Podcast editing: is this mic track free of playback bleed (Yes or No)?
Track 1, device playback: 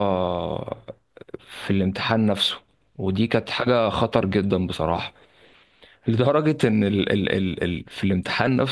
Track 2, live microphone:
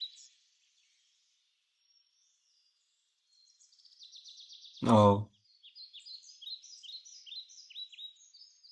Yes